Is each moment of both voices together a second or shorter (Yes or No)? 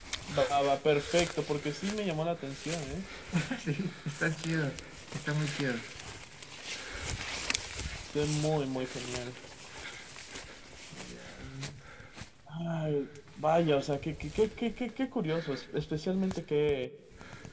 Yes